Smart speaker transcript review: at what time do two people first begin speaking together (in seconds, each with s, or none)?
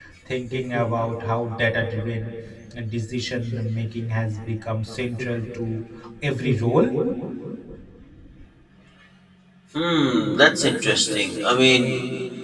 none